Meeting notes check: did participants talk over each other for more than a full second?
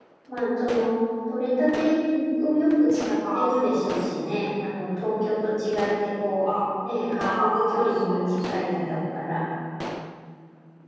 Yes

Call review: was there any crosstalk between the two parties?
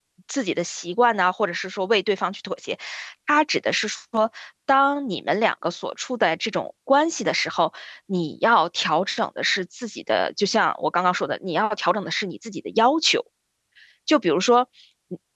No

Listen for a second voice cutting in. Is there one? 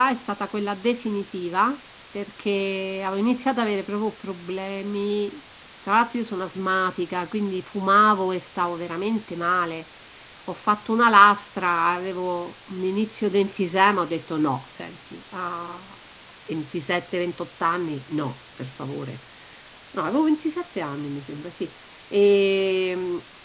No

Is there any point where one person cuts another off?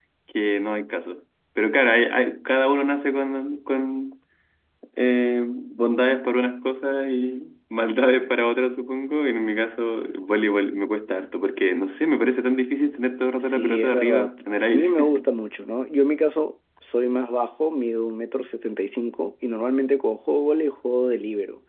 Yes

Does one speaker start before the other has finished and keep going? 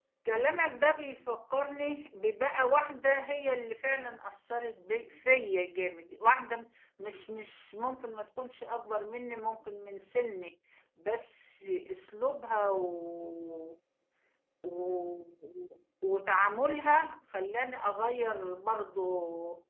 No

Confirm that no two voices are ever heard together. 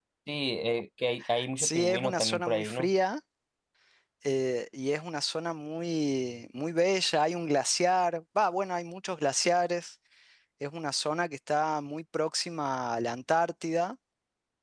No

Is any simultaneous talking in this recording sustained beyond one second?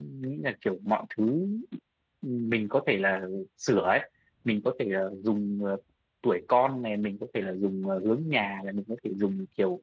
No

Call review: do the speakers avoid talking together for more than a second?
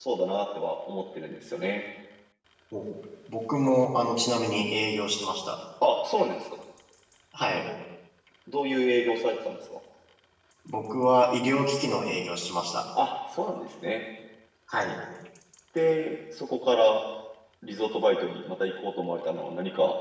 Yes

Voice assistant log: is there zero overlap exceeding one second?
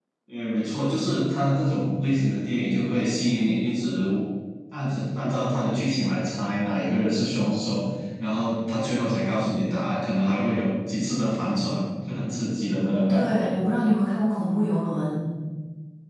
Yes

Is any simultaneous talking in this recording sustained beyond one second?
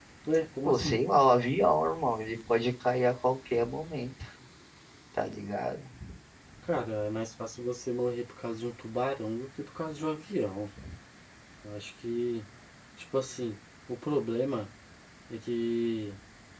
No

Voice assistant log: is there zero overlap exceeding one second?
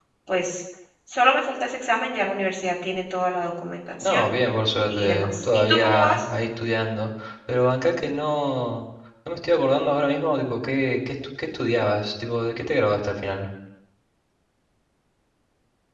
No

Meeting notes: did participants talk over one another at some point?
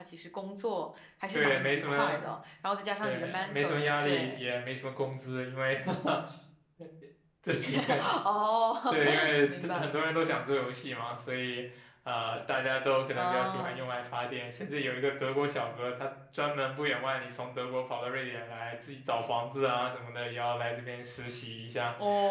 Yes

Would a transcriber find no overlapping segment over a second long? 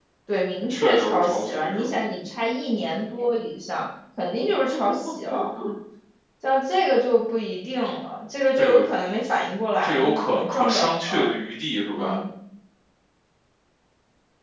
No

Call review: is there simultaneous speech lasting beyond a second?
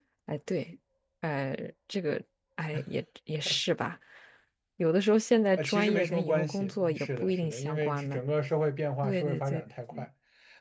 Yes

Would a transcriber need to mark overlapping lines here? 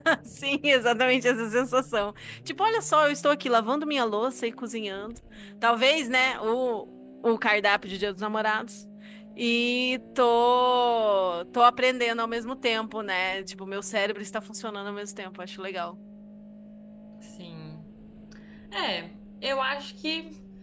No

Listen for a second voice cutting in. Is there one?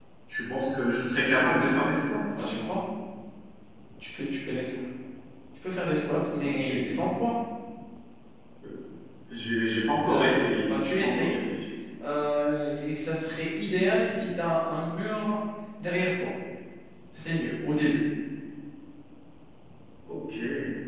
Yes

